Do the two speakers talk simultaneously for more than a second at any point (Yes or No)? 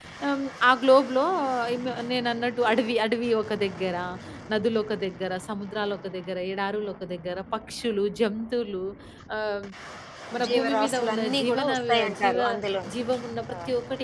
Yes